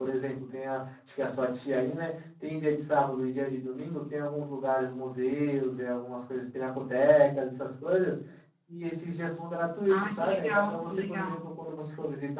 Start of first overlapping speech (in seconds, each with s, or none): 9.9 s